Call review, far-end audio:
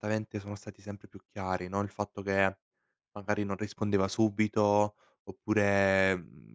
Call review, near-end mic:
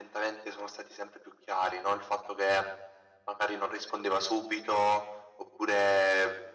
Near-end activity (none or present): none